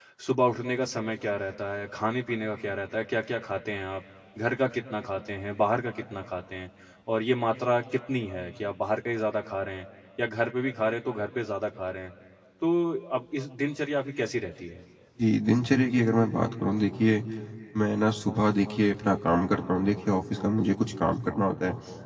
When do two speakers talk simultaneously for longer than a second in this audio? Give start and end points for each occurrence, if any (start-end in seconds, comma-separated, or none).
none